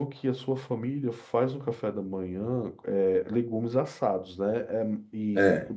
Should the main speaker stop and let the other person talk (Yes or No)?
No